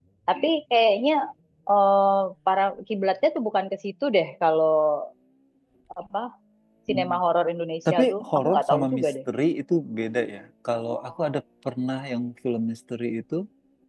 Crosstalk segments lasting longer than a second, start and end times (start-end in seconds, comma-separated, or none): 7.9-9.1